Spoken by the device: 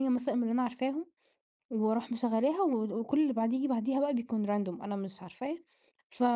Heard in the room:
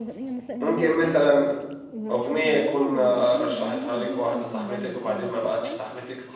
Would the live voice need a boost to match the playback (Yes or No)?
No